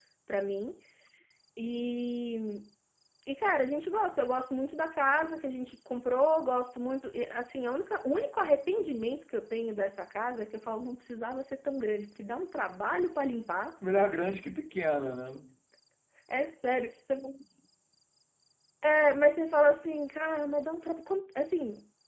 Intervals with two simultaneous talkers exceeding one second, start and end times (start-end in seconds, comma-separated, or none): none